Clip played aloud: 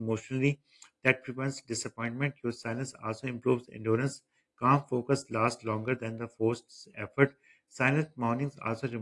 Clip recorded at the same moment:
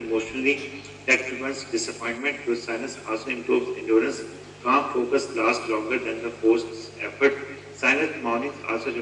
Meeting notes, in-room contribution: none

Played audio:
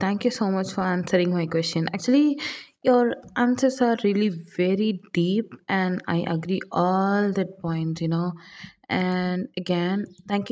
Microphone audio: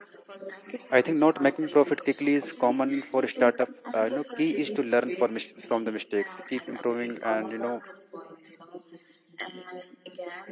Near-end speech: present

